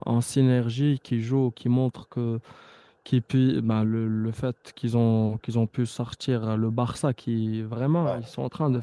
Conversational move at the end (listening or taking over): listening